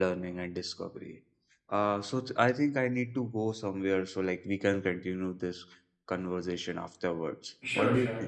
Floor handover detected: Yes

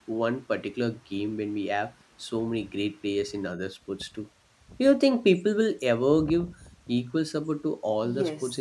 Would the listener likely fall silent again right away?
No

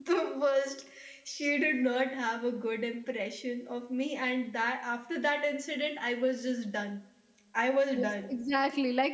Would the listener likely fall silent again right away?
No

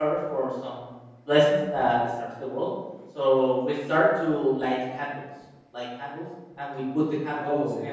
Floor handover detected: No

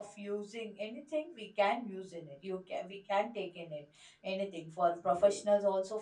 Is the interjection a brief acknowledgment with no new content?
Yes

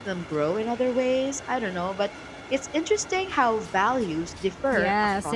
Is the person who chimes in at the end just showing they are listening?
No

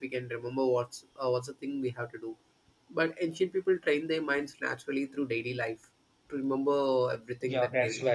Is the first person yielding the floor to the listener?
Yes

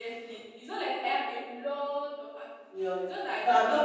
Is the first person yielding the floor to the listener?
Yes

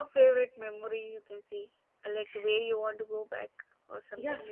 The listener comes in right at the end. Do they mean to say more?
Yes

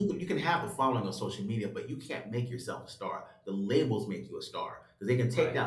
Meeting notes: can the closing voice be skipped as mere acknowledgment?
Yes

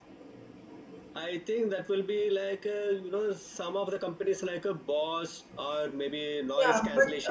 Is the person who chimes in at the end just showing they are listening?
No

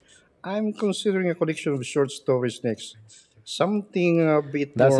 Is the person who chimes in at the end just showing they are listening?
No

